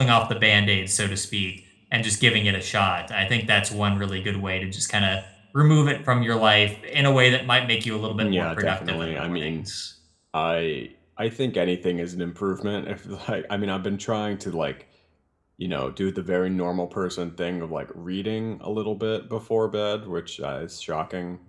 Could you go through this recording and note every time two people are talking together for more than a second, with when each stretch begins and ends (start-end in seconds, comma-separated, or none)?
8.2-9.7